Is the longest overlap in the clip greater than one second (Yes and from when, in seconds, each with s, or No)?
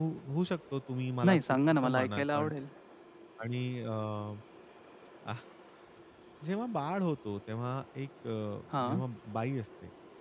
Yes, from 1.2 s